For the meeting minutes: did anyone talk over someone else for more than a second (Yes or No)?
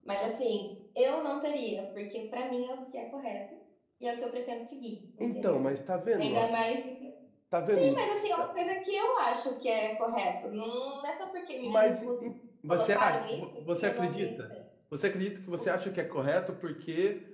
Yes